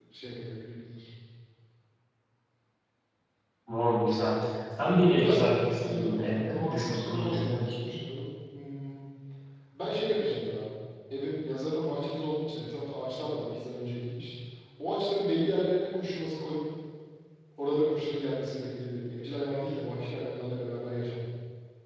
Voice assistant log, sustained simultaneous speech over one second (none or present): present